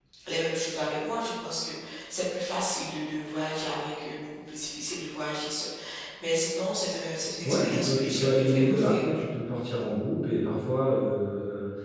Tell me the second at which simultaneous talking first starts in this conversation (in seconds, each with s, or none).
7.4 s